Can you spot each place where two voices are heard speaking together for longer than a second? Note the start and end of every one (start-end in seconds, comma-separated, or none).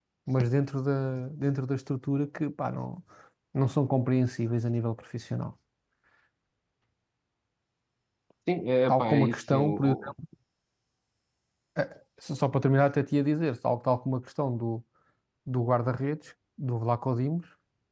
8.9-10.1